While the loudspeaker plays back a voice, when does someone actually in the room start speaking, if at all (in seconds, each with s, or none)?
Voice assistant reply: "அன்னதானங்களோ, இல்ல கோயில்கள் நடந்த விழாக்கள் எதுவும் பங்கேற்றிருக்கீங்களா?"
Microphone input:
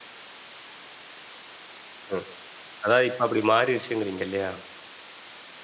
2.1 s